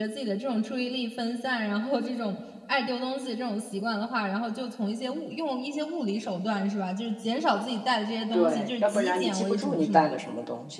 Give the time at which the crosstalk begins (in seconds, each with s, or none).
8.3 s